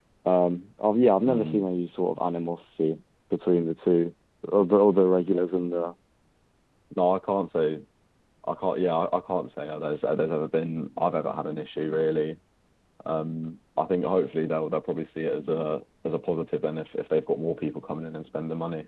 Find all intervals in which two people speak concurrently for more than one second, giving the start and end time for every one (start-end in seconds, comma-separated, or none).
none